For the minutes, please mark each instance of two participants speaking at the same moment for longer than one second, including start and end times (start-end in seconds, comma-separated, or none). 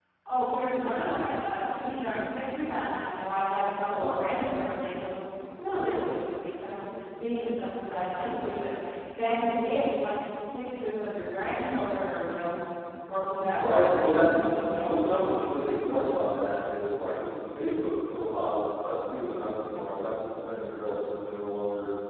13.6-15.5